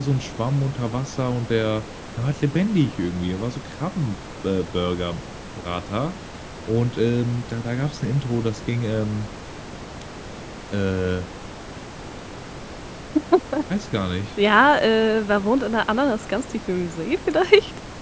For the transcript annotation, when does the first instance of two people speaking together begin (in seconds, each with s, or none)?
none